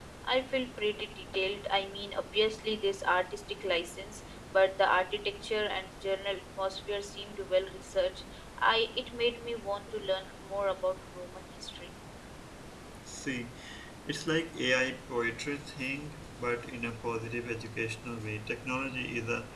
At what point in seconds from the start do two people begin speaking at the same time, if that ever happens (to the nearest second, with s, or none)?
none